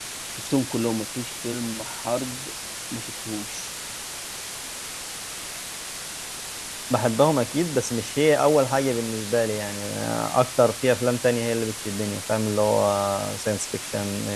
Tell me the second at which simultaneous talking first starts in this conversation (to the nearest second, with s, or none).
none